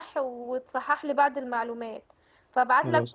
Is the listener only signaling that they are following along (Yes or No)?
Yes